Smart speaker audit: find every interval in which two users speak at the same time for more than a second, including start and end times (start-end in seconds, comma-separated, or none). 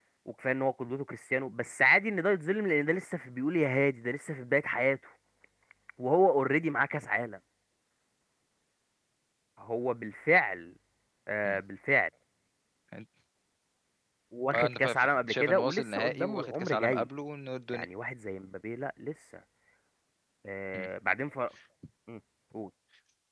14.5-17.1